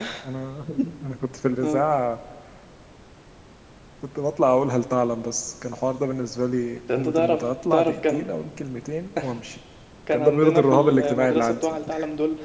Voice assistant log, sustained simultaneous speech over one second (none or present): present